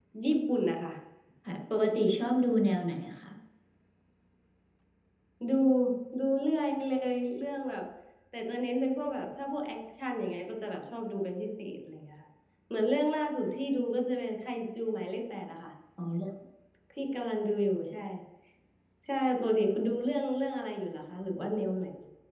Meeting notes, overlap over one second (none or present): none